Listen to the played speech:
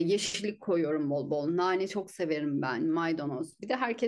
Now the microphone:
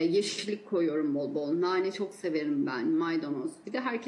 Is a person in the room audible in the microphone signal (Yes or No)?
No